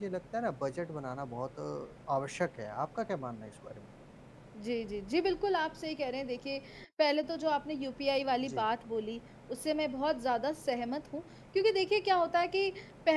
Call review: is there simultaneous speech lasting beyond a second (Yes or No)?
No